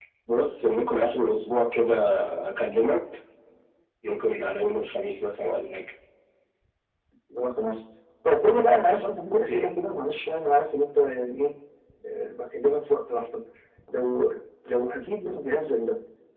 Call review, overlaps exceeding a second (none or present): none